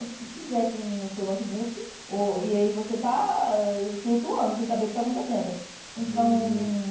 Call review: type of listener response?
listening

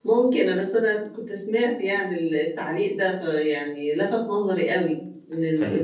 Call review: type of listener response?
listening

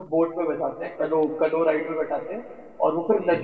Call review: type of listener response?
listening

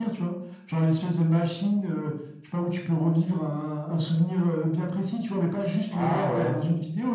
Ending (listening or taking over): listening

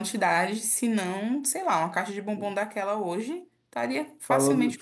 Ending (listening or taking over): taking over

